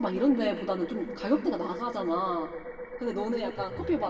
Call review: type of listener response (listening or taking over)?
listening